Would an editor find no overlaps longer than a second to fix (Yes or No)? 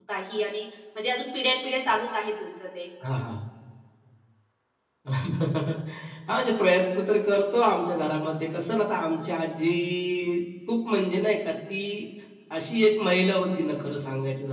Yes